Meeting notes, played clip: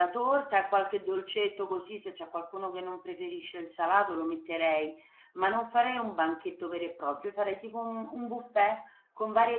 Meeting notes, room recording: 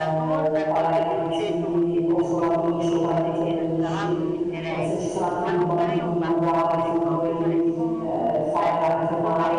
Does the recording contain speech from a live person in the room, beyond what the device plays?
Yes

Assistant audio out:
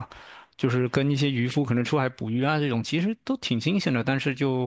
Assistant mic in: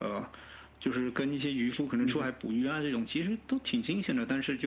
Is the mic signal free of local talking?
No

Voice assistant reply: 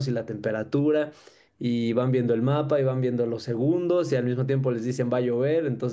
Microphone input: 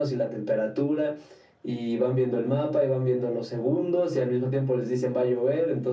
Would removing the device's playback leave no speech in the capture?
Yes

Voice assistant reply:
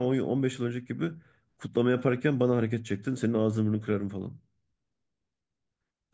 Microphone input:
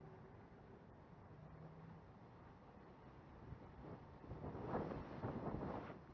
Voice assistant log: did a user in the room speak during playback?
No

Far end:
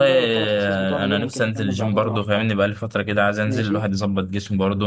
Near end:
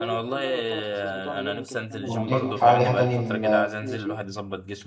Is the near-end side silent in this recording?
No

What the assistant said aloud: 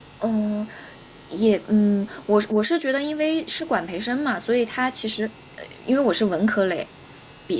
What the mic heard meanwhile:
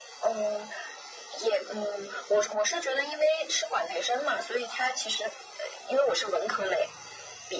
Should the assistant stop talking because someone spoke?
No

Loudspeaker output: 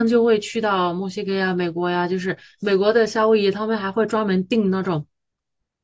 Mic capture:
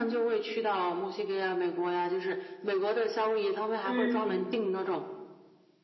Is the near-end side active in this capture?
Yes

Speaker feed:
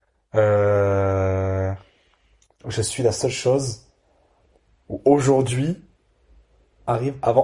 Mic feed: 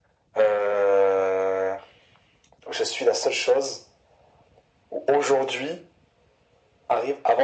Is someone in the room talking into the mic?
No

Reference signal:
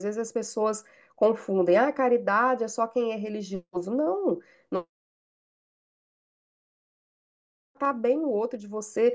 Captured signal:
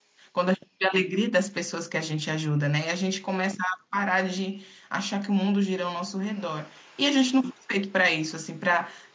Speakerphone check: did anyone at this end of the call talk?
Yes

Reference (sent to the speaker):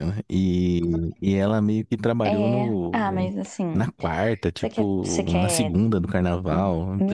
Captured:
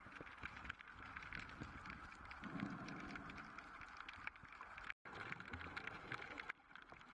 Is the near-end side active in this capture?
No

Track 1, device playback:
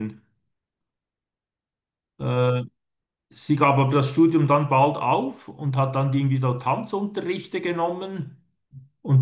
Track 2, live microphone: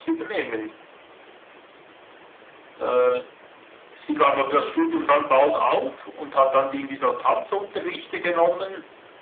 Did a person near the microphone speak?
No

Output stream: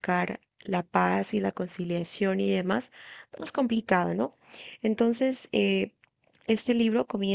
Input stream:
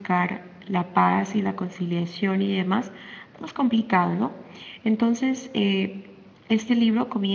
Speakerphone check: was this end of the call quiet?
Yes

